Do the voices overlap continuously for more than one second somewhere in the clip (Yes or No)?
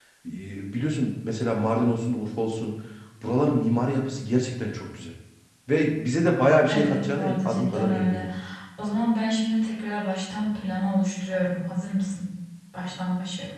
Yes